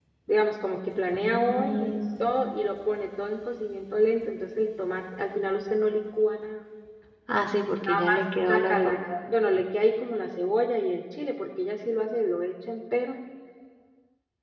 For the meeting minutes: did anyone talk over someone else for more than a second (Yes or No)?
Yes